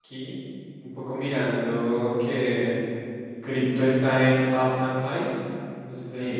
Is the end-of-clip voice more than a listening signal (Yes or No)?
Yes